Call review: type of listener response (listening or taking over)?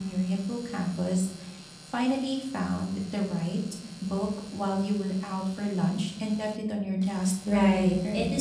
taking over